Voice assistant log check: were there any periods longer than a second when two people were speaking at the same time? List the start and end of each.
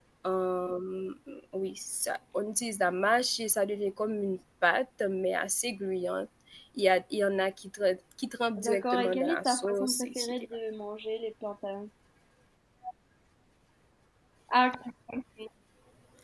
8.6-10.3

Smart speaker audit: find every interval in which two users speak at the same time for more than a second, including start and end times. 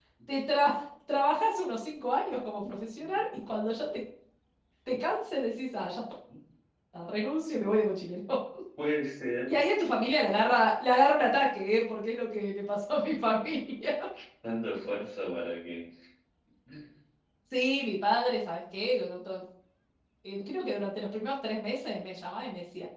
none

